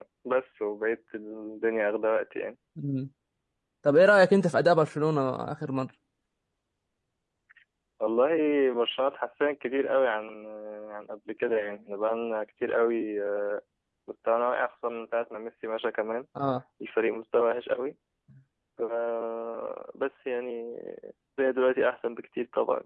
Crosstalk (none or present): none